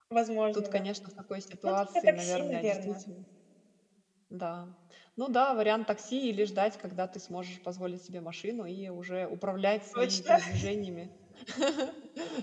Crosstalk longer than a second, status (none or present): present